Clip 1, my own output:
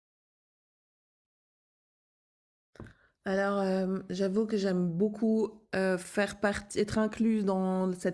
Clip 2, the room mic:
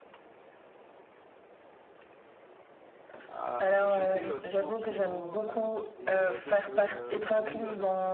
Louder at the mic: echo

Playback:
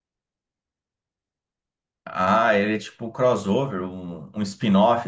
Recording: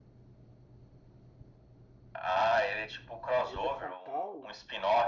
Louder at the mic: echo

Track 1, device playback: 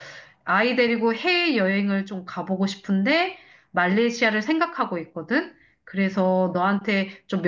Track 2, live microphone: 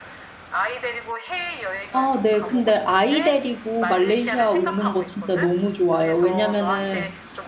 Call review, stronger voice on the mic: user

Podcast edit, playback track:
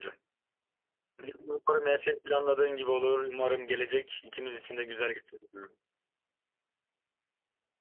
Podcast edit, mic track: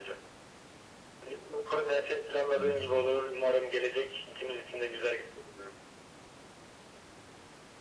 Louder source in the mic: echo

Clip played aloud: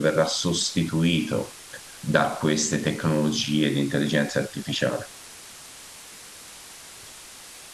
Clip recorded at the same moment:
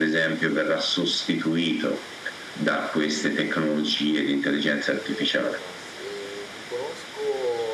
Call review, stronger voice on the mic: echo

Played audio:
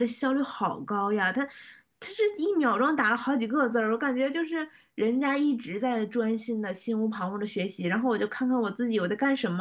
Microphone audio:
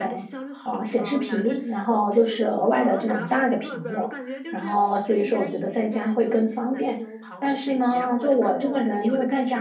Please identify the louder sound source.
user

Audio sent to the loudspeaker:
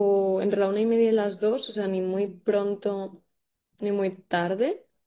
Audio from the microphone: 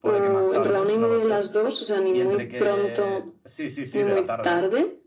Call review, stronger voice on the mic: echo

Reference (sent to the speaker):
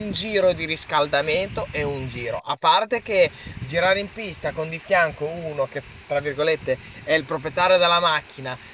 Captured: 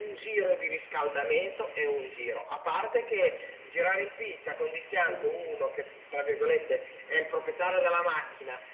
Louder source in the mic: echo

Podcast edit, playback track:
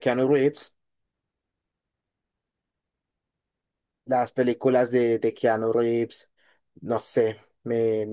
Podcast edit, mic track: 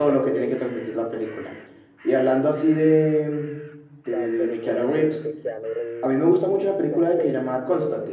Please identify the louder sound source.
user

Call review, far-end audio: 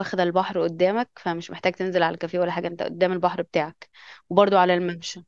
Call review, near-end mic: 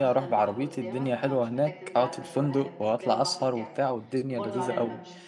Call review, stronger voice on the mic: user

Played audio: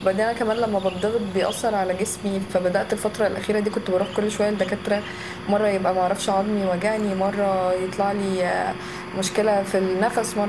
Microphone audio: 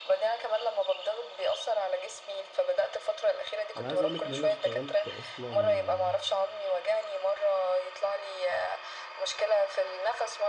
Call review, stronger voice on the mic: echo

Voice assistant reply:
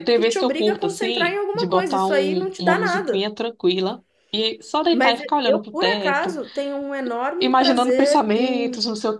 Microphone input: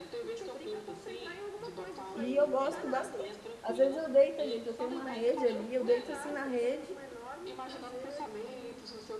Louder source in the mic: user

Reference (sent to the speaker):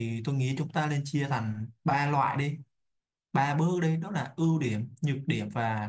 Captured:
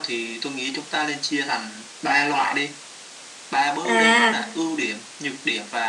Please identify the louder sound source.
user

